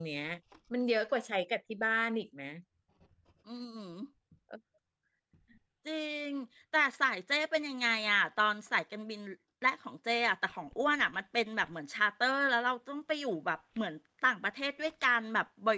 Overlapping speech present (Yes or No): No